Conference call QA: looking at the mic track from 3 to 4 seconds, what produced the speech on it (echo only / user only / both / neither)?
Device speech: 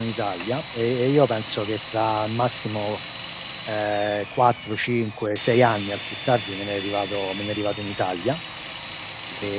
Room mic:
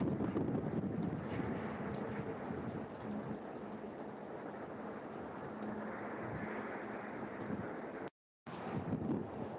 neither